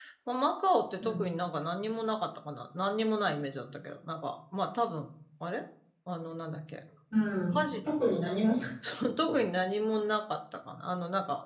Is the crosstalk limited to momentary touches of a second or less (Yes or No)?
Yes